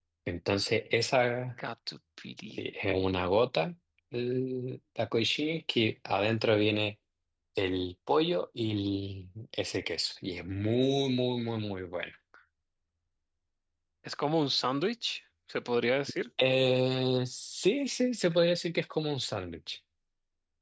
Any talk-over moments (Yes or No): No